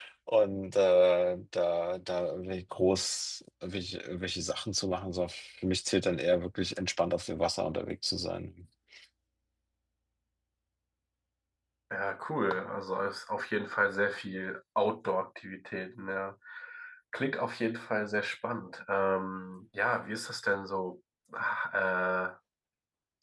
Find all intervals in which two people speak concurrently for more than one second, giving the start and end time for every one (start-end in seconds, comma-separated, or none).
none